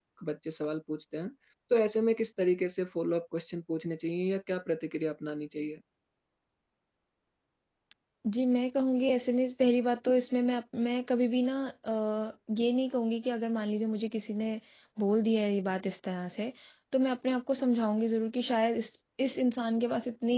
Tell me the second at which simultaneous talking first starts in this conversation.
none

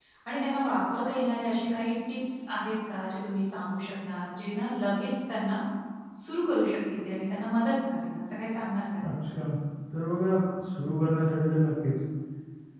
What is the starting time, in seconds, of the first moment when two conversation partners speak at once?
none

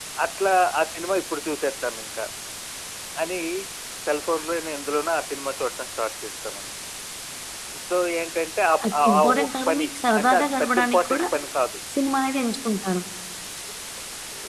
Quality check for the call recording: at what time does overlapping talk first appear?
8.8 s

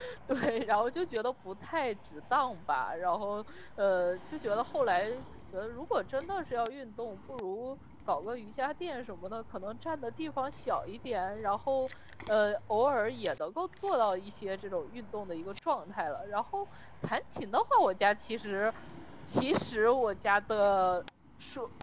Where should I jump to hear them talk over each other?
none

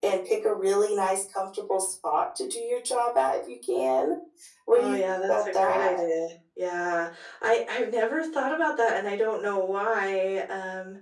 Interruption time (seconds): 4.7 s

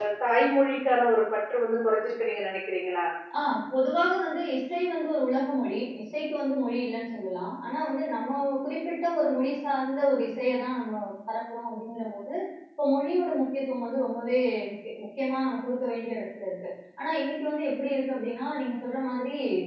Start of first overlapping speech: none

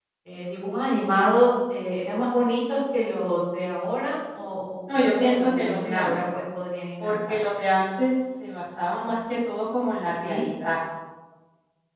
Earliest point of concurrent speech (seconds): 4.9 s

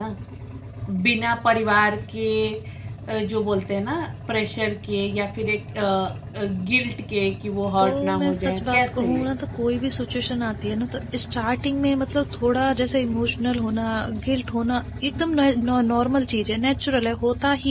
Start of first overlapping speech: 7.8 s

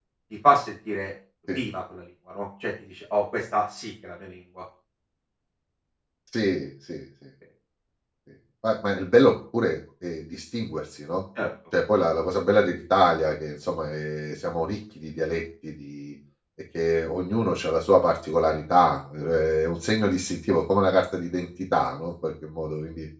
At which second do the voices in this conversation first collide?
none

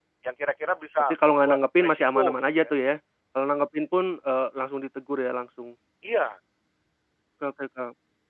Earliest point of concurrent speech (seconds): 1.1 s

